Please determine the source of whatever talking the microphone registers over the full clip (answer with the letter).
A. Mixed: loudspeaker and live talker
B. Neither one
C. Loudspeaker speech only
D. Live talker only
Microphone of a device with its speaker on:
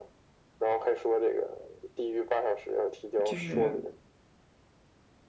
A